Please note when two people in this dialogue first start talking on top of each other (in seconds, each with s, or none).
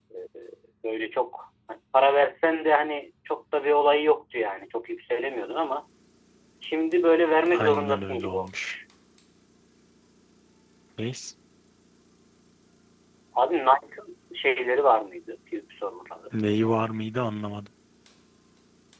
7.5 s